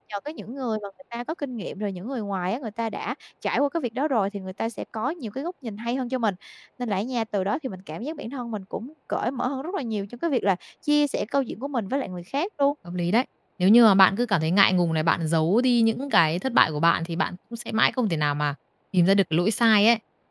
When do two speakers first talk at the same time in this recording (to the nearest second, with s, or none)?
none